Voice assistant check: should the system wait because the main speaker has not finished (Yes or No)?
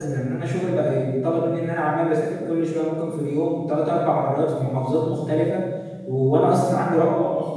Yes